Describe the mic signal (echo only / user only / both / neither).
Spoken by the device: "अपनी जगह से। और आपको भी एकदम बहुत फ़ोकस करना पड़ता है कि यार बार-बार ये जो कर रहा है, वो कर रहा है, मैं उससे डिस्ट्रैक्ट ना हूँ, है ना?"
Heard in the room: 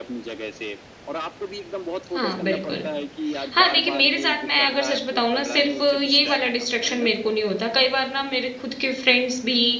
both